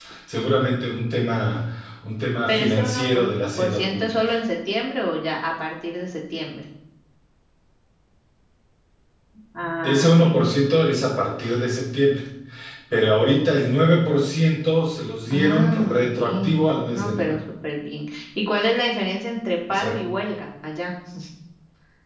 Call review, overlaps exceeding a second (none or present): present